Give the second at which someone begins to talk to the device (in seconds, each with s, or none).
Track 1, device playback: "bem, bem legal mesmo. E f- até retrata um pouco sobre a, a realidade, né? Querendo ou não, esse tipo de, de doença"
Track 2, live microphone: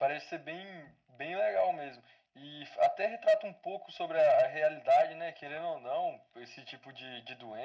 none